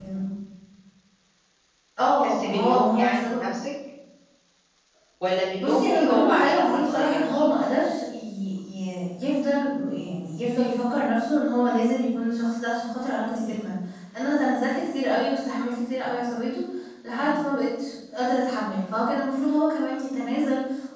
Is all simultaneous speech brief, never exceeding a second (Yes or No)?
No